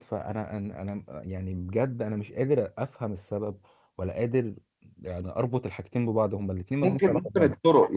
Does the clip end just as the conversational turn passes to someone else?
Yes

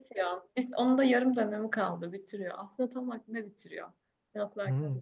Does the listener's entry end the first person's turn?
Yes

